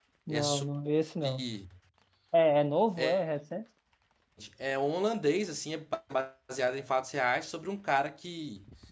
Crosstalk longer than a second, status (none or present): none